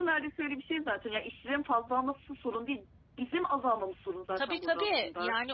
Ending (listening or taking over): taking over